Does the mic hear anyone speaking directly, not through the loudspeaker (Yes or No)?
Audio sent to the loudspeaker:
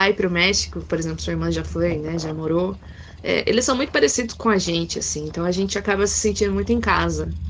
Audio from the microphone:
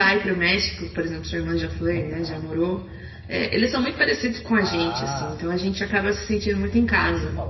Yes